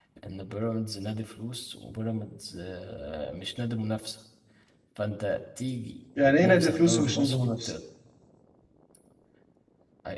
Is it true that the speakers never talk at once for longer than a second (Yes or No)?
No